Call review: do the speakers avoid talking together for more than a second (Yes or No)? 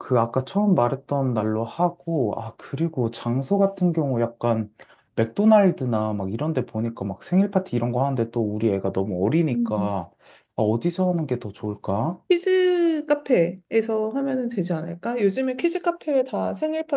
Yes